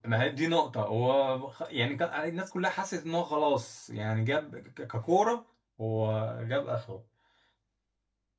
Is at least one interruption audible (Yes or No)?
No